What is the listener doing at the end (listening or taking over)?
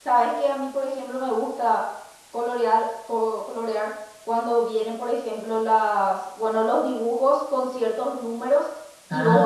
listening